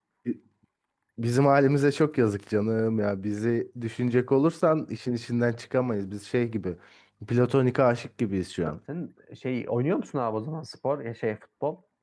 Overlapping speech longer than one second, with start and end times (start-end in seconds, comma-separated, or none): none